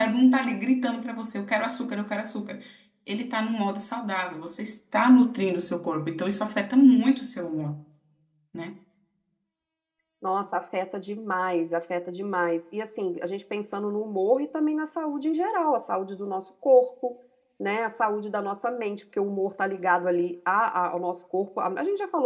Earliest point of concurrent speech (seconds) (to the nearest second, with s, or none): none